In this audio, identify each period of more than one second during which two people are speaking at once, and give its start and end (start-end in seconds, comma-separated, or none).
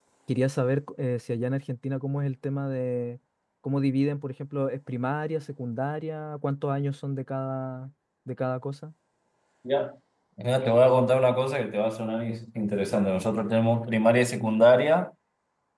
none